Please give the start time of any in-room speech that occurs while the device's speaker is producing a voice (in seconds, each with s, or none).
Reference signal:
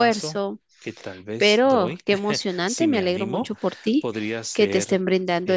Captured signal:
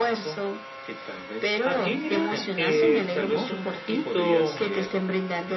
1.6 s